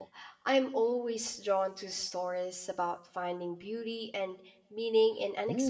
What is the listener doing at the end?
taking over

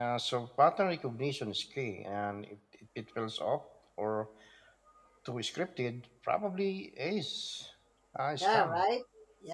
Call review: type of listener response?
taking over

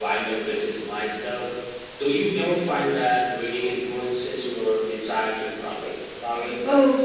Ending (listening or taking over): taking over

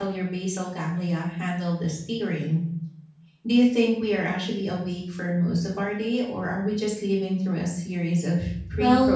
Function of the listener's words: taking over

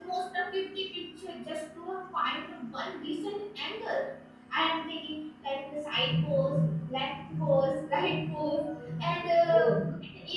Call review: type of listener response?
listening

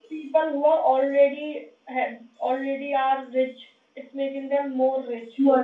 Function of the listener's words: taking over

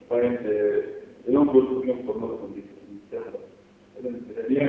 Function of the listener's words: taking over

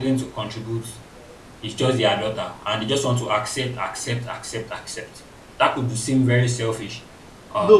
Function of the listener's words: taking over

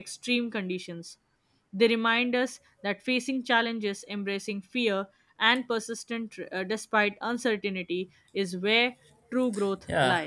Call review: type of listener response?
taking over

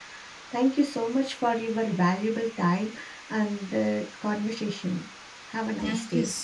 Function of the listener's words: taking over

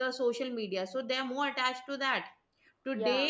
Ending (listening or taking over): listening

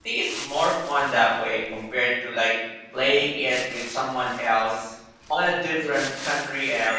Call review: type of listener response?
listening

